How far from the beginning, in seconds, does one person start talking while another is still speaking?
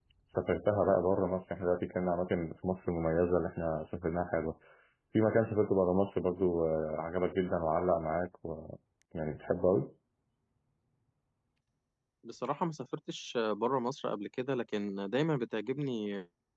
none

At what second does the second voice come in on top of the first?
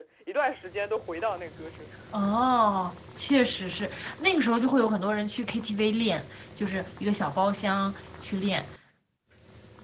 none

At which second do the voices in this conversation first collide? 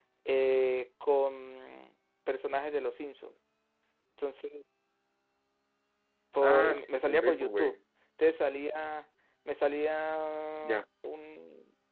6.4 s

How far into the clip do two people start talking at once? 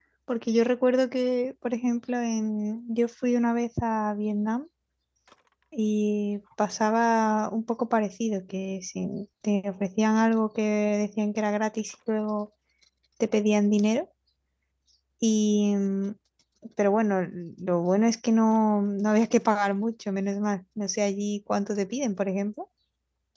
none

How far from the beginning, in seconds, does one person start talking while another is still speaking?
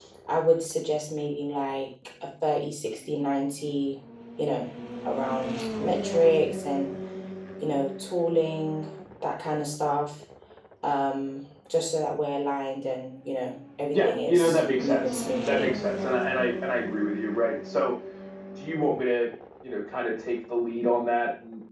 13.9 s

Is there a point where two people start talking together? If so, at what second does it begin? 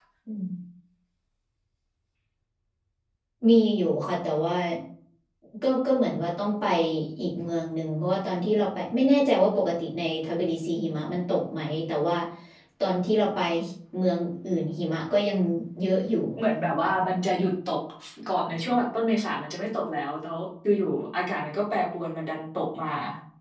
none

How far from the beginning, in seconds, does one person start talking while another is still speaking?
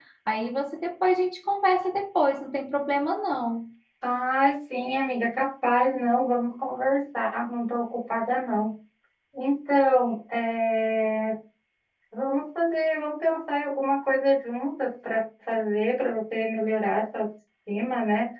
none

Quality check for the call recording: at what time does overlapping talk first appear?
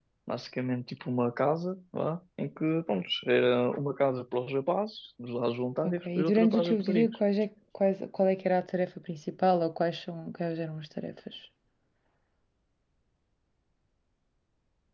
5.8 s

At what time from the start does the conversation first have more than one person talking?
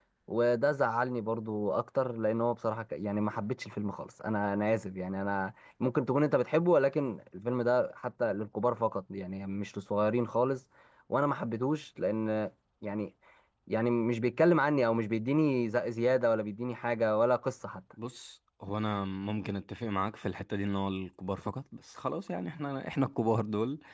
none

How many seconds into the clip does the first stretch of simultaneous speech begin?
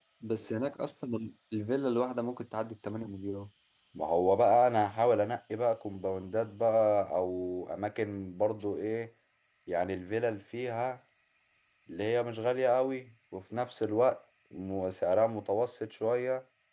none

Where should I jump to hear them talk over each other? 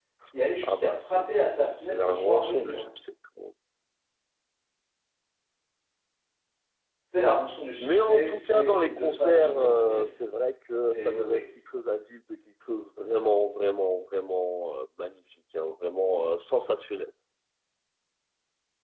0.6 s

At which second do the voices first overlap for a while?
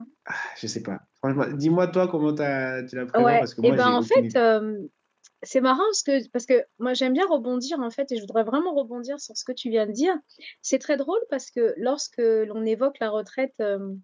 3.1 s

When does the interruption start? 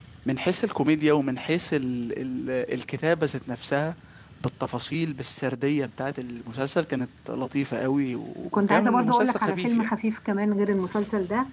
8.4 s

